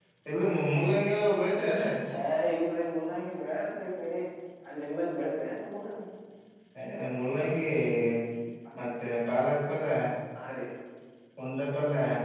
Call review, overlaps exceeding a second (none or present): none